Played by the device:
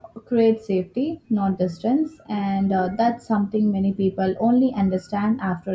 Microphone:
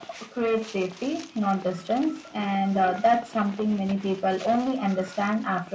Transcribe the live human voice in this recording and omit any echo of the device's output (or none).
none